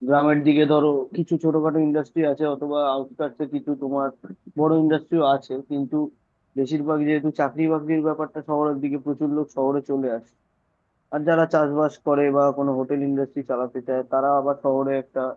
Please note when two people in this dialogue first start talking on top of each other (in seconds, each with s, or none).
none